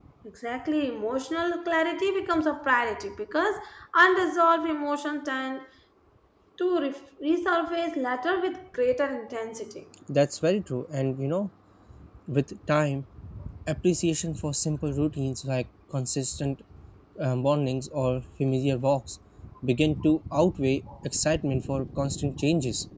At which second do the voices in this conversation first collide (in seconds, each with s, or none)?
none